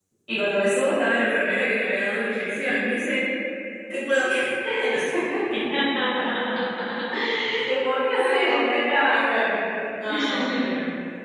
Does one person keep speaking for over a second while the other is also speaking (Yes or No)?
Yes